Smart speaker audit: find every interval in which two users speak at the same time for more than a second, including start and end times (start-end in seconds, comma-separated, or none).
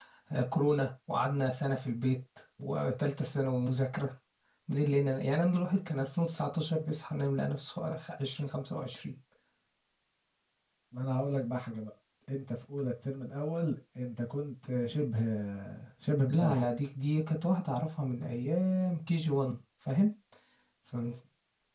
none